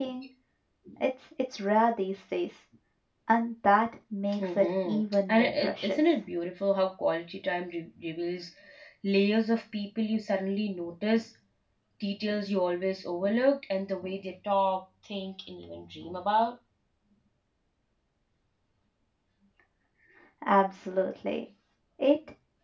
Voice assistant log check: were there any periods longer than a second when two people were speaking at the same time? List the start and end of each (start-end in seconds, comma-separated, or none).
4.4-6.0